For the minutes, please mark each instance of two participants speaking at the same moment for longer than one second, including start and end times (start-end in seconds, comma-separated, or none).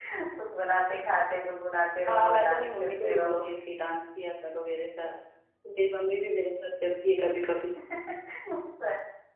2.1-3.5